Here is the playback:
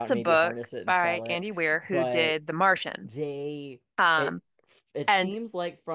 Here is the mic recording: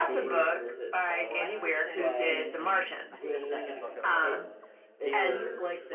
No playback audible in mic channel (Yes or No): No